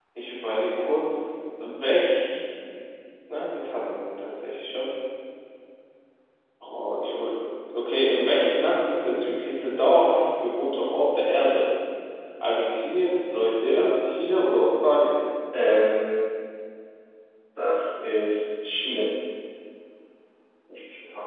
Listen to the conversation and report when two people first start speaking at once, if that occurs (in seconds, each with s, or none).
none